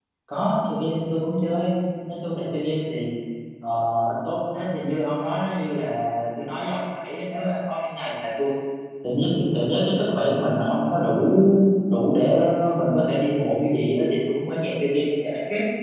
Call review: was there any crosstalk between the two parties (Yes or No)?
No